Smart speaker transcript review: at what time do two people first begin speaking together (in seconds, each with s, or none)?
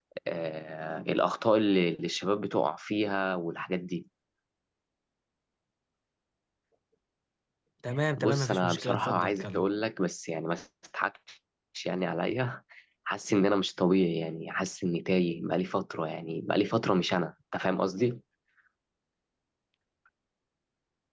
8.2 s